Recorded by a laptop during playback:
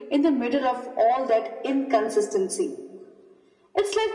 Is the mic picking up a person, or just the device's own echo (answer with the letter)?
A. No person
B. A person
A